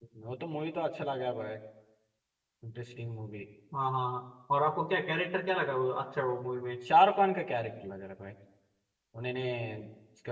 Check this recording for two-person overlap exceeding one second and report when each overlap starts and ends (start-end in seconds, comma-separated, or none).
none